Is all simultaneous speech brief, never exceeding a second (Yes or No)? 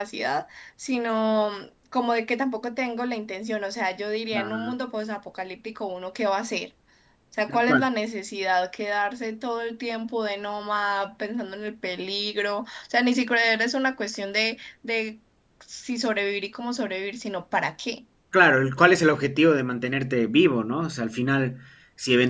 Yes